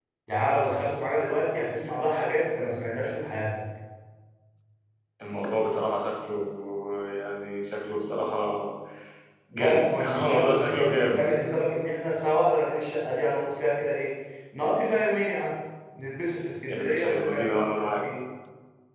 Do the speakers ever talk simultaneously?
Yes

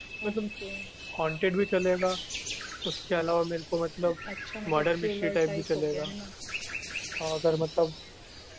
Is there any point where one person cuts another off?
Yes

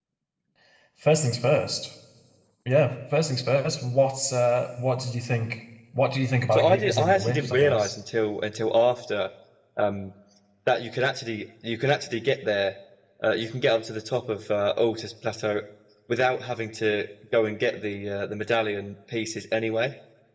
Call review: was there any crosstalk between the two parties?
Yes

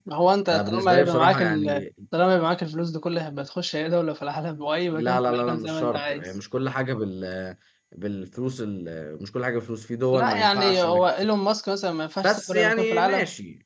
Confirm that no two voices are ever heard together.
No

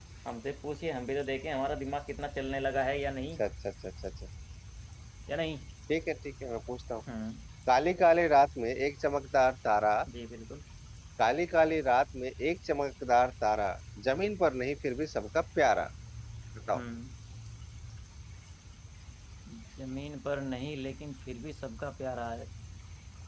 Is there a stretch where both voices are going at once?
No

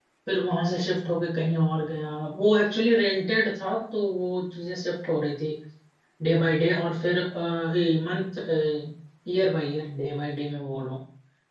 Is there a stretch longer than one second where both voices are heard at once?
No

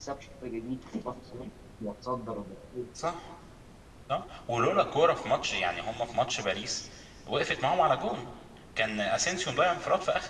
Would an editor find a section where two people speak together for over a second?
No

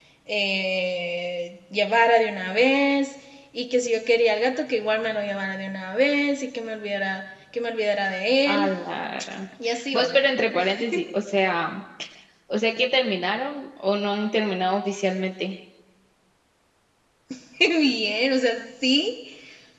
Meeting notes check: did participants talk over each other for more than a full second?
No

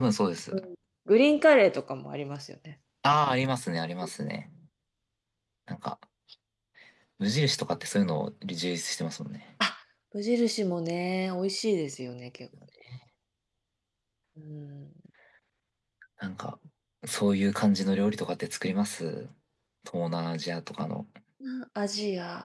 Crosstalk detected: No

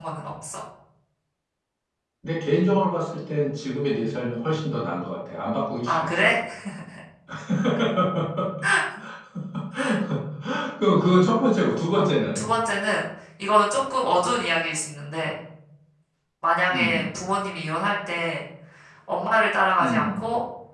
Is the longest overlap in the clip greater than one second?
No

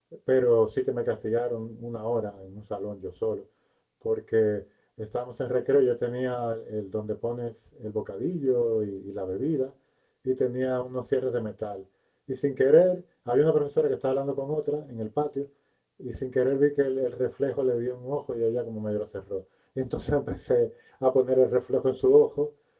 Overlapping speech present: No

